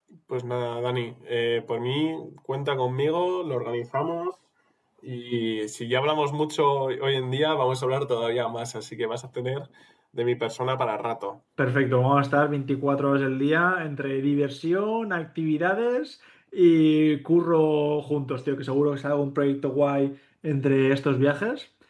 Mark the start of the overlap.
none

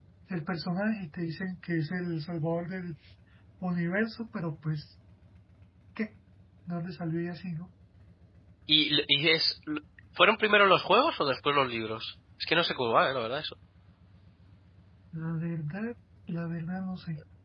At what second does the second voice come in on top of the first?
none

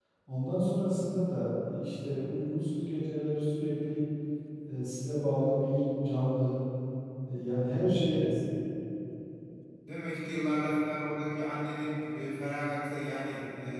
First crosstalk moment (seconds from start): none

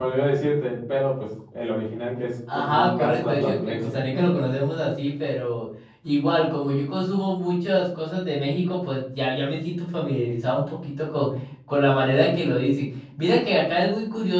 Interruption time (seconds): 2 s

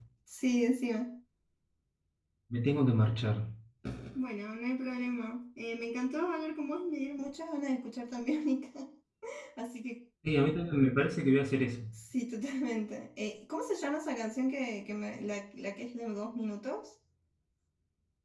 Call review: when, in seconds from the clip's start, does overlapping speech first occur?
none

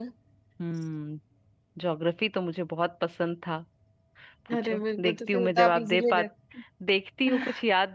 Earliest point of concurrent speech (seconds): 5 s

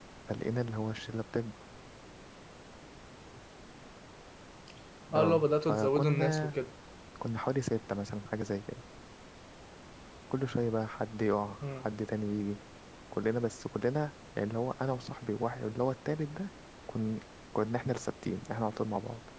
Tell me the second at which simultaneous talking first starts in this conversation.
5 s

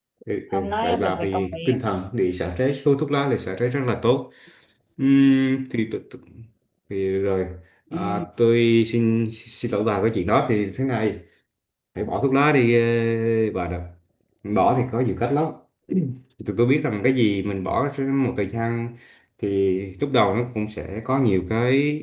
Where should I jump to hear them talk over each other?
1 s

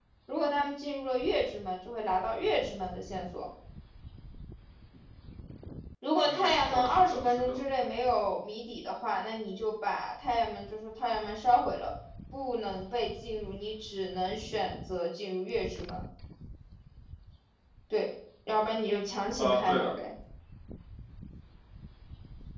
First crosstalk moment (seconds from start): 6 s

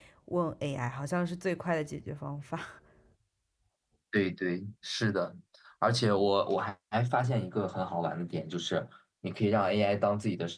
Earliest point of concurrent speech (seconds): none

